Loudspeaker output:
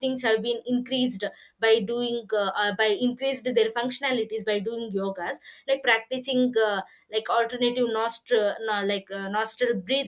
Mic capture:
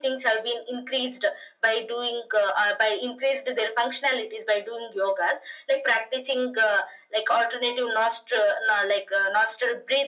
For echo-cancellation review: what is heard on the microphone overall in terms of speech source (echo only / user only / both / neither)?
echo only